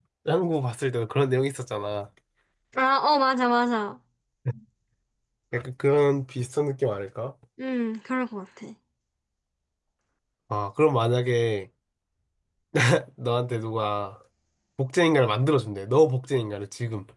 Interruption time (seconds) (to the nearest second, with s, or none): none